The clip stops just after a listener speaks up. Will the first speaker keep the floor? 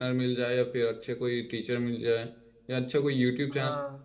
Yes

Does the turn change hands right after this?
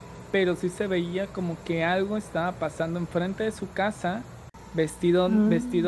No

